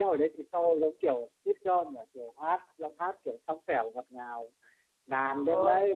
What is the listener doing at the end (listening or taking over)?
listening